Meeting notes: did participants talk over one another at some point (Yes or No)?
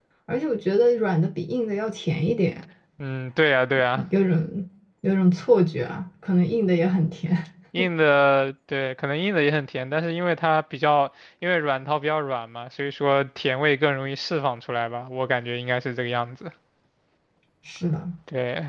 No